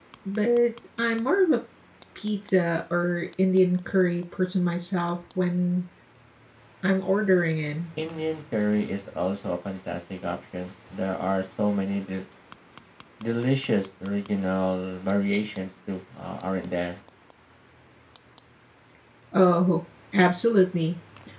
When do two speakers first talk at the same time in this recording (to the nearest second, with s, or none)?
none